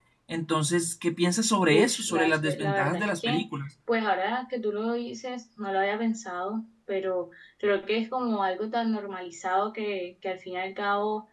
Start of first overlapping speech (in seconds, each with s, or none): 1.7 s